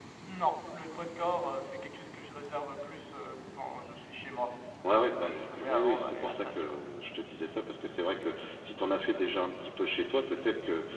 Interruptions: present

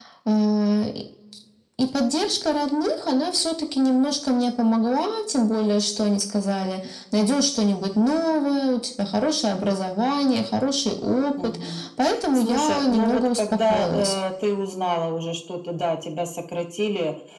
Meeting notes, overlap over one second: present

